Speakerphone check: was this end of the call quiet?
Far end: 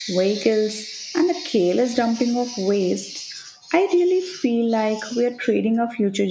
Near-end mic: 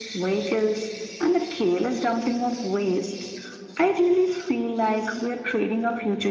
Yes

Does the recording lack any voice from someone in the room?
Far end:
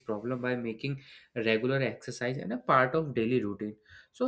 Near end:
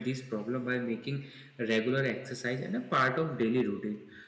Yes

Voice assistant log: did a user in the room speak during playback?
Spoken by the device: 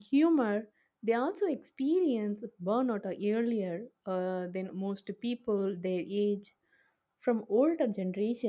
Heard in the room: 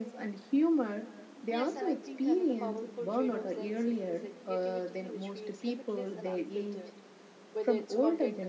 Yes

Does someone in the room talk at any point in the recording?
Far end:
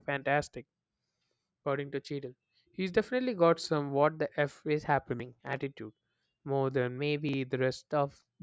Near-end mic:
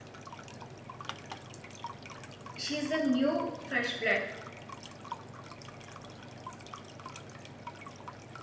Yes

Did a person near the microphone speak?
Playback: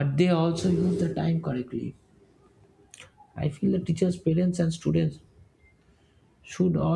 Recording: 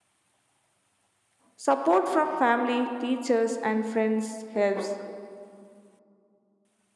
Yes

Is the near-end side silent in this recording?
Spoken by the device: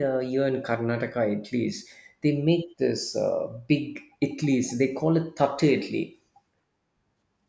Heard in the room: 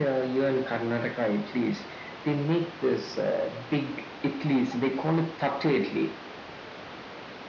Yes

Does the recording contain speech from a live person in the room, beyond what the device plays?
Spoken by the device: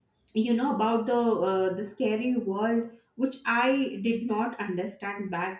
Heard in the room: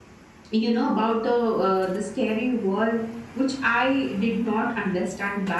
No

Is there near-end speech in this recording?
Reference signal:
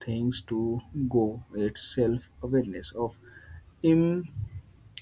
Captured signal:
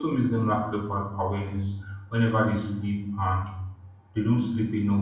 Yes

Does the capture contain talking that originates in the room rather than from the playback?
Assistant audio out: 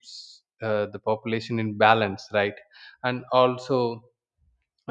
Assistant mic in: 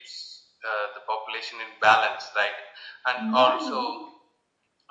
Yes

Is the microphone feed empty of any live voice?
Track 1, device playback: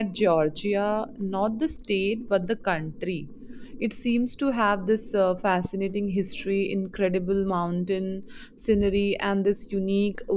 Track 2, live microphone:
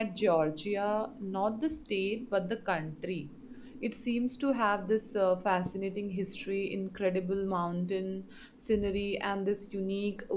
Yes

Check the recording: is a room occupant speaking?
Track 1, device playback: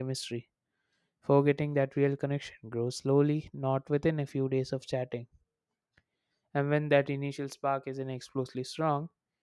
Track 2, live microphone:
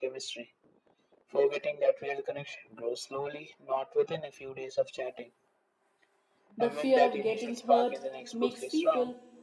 Yes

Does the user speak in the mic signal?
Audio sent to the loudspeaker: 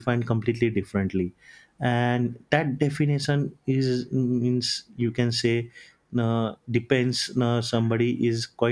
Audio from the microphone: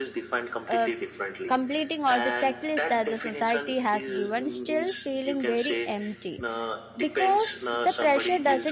Yes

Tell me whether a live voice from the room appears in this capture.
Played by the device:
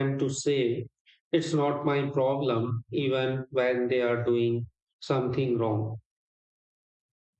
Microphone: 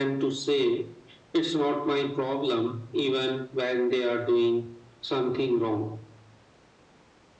No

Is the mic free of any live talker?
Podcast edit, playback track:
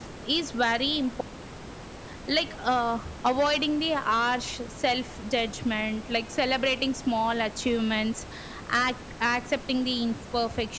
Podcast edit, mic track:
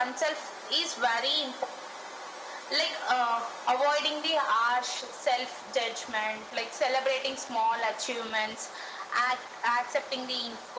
Yes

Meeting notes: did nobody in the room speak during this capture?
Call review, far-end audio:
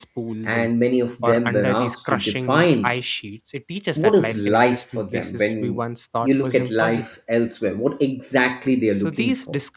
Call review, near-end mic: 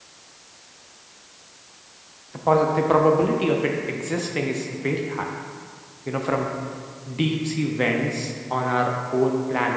No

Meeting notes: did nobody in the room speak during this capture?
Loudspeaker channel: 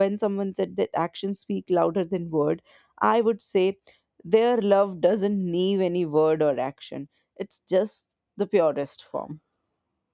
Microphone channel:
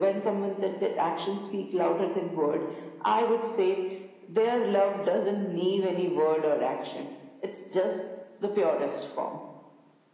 Yes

